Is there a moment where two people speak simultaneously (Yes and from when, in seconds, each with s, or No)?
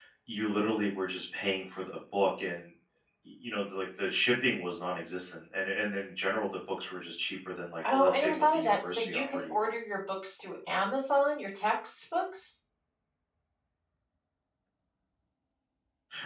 Yes, from 7.8 s